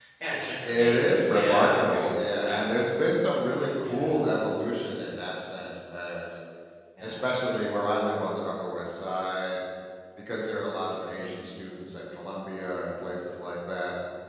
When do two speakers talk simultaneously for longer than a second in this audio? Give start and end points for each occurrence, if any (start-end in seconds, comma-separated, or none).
0.6-2.1